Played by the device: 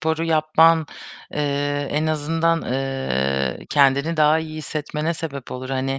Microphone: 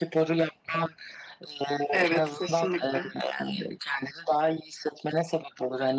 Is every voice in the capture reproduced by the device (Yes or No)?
No